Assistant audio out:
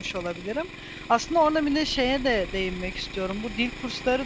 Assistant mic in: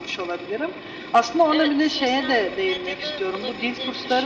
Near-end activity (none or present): present